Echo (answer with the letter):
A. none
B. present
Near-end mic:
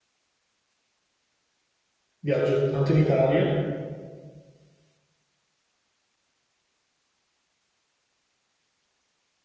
A